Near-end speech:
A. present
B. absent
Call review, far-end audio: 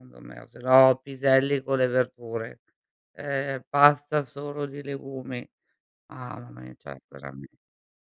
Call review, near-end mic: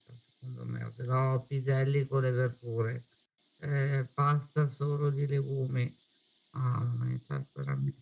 B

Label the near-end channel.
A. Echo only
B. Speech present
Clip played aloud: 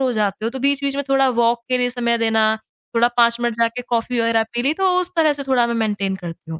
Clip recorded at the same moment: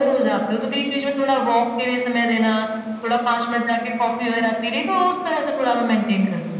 A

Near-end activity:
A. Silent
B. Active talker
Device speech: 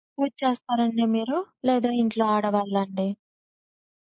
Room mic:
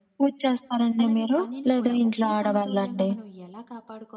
B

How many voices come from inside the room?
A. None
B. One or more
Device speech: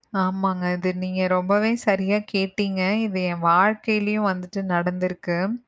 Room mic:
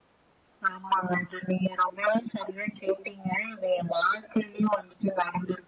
A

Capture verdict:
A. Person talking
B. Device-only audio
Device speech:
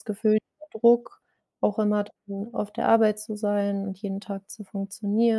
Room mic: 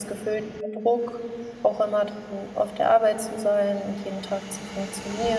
B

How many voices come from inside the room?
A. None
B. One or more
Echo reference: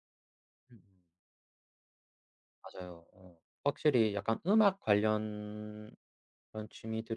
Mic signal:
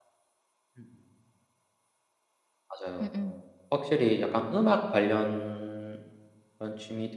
B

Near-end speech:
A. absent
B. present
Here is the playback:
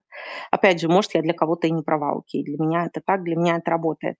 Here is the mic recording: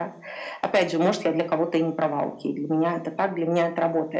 A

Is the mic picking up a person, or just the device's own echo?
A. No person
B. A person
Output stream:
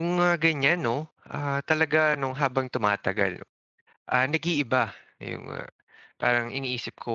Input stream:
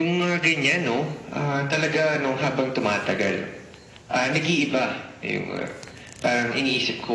A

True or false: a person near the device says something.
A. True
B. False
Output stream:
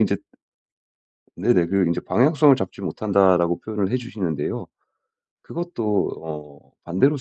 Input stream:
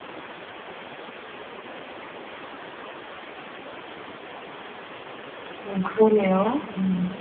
A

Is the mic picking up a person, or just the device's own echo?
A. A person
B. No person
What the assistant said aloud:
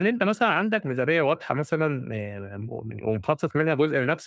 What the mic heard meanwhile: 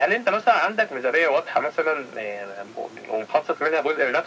B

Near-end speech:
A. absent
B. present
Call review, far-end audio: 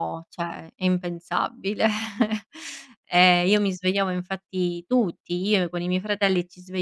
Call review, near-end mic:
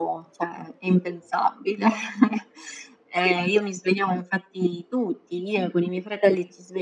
A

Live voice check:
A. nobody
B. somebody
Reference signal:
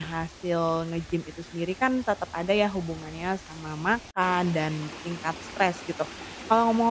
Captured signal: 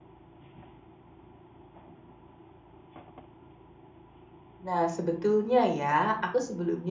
B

